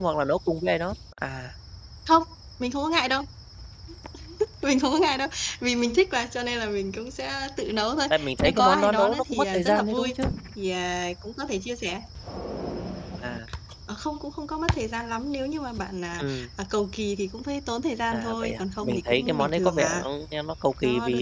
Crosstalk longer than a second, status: present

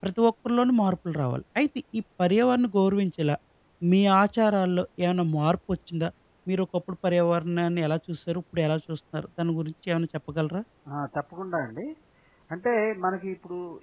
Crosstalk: none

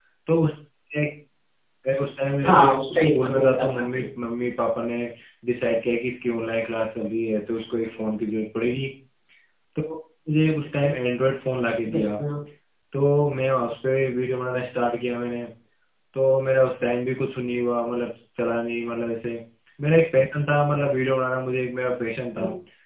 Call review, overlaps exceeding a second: present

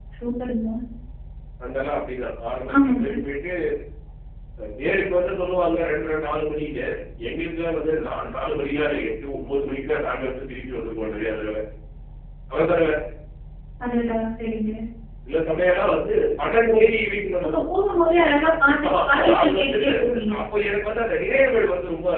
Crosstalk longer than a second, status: present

